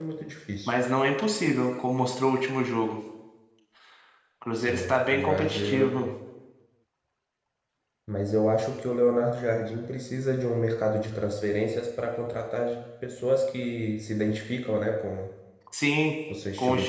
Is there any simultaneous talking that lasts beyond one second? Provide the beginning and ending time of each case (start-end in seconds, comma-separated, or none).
4.6-6.1